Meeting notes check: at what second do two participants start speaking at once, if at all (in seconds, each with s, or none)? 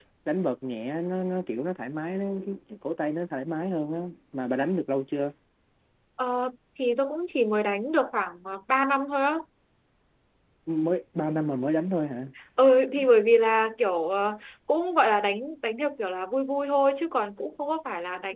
none